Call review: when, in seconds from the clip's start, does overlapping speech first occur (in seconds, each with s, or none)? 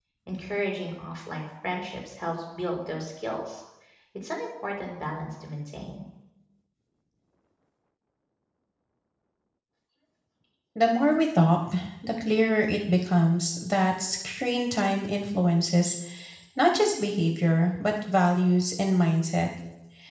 none